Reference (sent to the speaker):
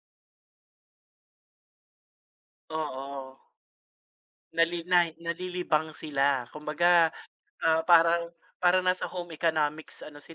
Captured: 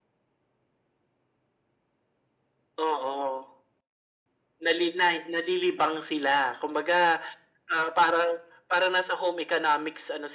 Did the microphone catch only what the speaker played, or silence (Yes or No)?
Yes